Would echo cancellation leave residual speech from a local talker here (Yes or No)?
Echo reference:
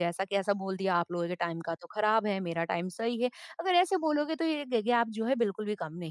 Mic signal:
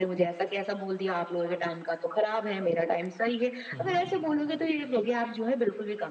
Yes